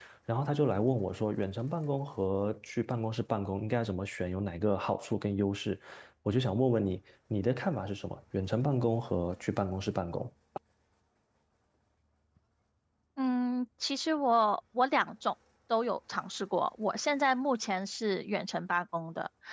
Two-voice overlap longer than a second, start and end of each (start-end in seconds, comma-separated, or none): none